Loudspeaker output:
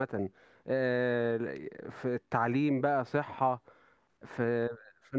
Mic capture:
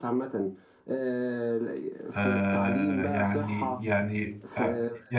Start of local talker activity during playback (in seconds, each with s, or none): 2.1 s